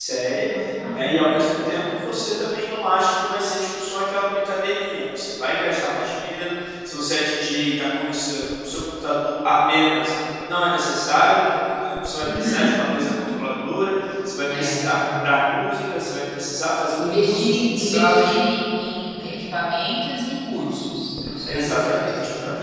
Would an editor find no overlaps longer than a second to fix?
No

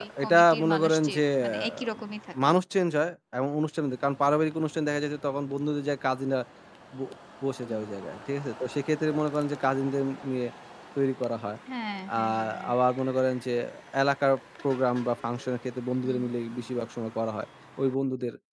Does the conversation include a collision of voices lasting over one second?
Yes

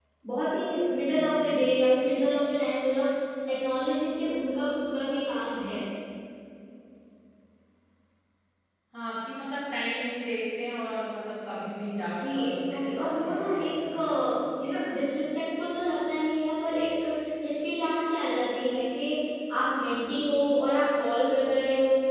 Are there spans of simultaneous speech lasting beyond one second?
Yes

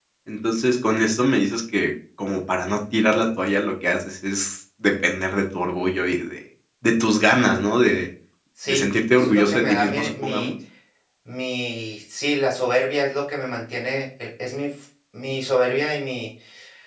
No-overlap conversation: No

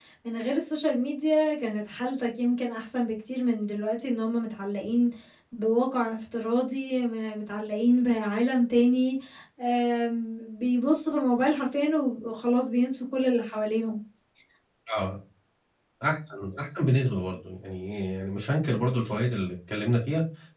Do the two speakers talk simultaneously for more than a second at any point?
No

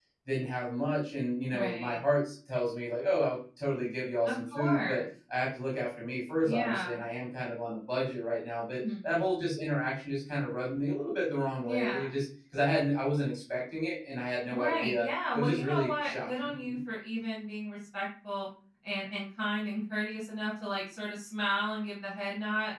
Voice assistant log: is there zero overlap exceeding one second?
No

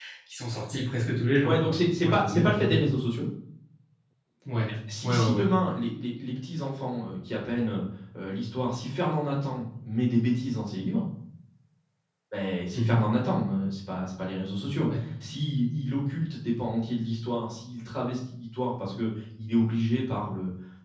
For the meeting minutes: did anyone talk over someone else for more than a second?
Yes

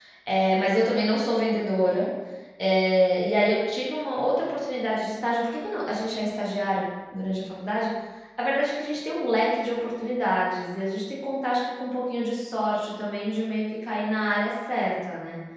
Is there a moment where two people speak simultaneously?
No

